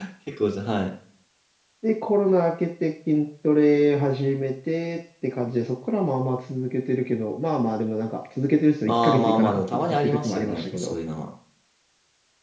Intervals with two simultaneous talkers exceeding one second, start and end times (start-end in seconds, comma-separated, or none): 8.9-10.9